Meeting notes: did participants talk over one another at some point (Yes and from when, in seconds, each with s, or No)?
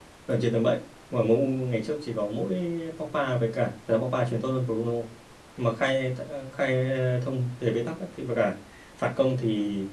No